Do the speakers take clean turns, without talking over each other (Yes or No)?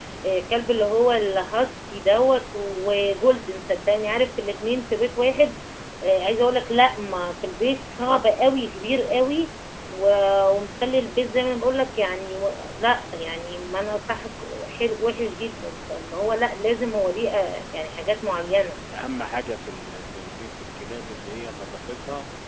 Yes